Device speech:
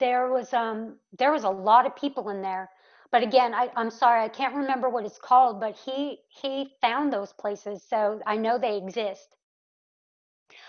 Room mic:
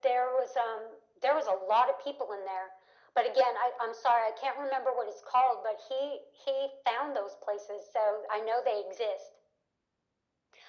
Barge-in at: none

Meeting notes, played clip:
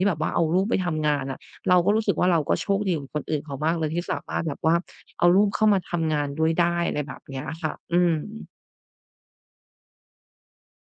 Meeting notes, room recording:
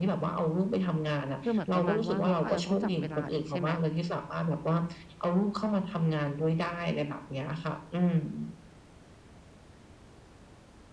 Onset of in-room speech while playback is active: 1 s

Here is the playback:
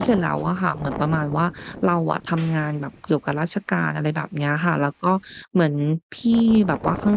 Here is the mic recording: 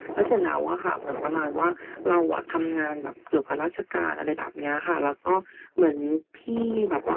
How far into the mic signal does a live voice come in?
none

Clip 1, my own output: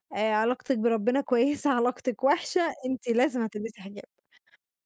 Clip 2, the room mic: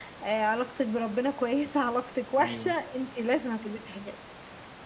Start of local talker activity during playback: 2 s

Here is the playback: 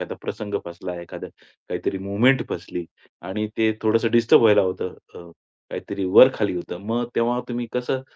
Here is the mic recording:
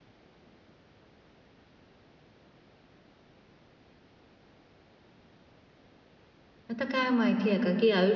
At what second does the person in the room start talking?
7 s

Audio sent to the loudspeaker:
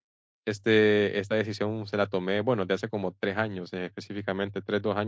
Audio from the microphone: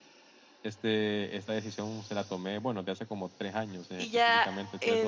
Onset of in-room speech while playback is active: 4 s

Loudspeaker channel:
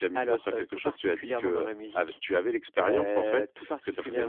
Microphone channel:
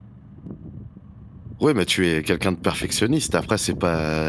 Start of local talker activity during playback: 2 s

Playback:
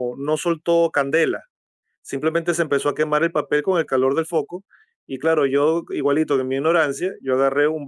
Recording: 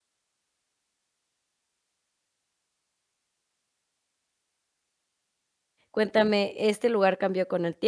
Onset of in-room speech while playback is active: 6 s

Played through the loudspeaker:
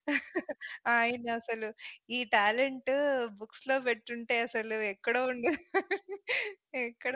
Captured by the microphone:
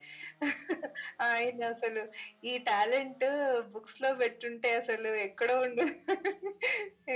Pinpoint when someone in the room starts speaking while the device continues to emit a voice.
none

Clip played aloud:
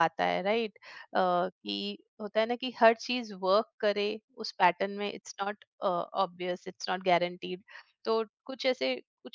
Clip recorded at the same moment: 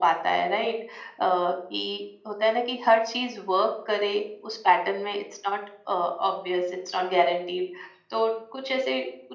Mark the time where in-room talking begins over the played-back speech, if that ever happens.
none

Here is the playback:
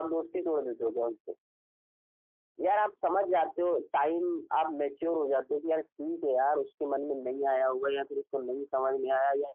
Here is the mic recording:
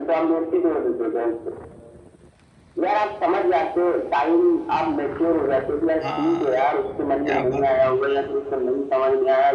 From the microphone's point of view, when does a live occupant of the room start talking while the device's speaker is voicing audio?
6 s

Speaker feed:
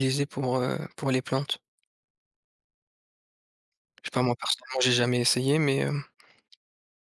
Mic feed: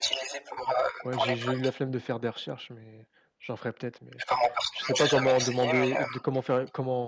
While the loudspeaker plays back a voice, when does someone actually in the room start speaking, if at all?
1 s

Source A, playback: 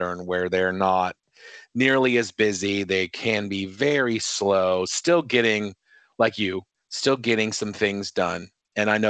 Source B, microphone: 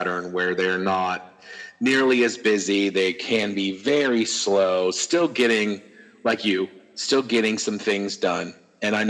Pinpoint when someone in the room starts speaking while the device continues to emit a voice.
none

